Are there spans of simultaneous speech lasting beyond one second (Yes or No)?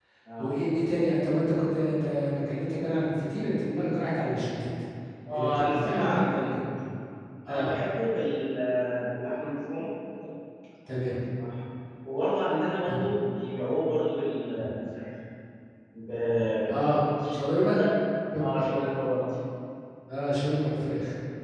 Yes